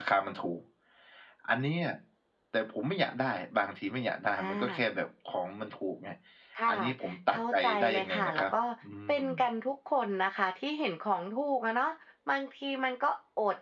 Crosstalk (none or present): present